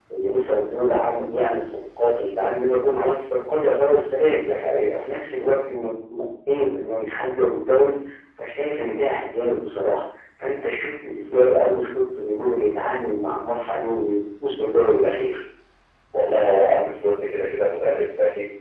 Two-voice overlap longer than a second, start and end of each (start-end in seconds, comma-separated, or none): none